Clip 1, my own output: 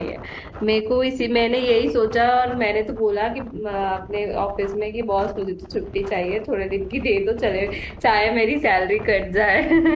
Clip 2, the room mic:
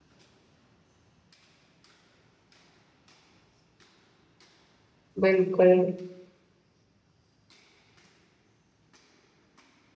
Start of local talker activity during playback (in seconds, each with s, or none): 5.2 s